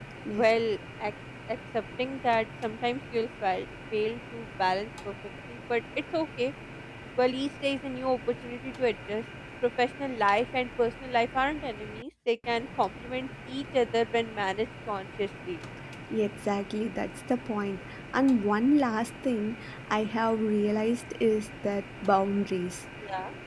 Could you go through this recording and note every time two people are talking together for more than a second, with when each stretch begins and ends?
none

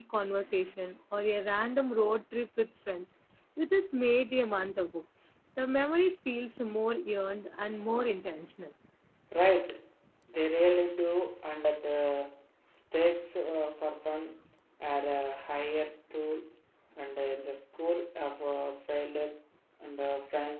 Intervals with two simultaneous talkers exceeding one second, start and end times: none

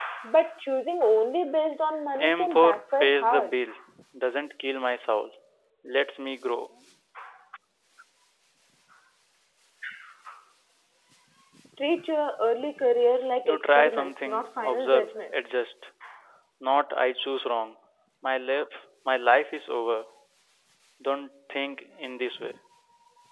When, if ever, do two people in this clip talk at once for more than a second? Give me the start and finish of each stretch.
2.2-3.6, 13.4-15.4

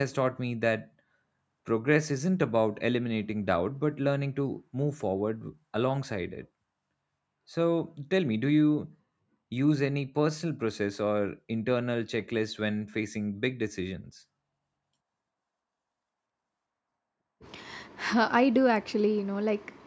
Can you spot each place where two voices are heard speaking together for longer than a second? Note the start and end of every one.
none

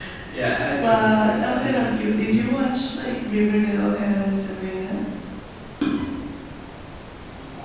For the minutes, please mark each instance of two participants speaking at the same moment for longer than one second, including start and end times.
0.8-2.3

